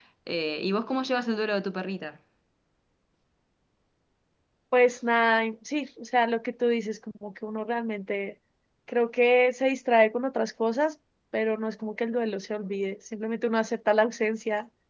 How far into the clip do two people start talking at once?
none

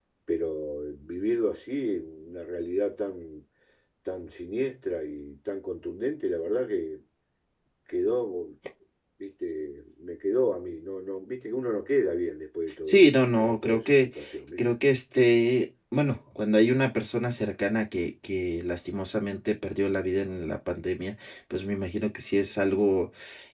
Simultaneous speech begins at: 12.9 s

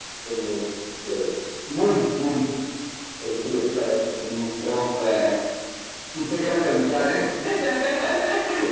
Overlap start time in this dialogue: none

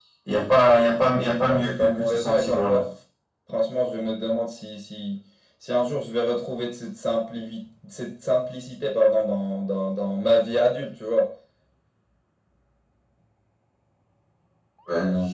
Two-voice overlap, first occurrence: 1.5 s

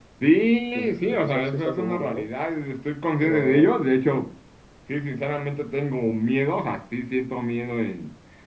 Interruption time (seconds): 0.8 s

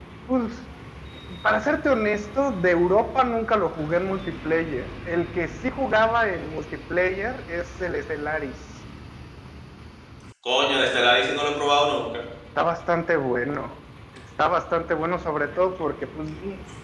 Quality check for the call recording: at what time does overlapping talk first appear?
none

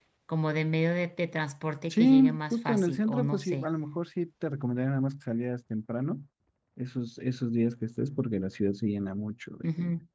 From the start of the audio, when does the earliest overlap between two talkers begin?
1.9 s

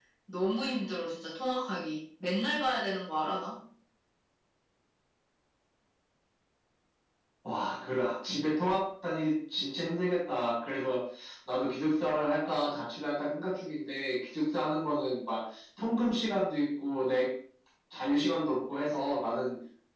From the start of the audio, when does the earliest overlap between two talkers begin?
none

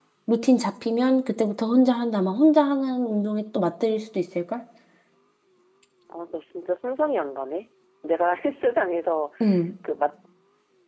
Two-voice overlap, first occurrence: none

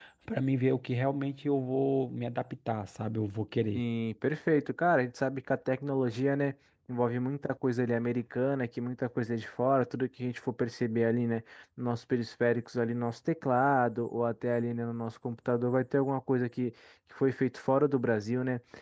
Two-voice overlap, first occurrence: none

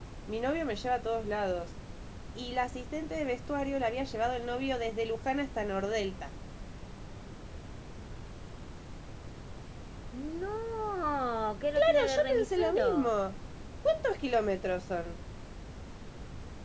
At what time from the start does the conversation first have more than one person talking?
11.8 s

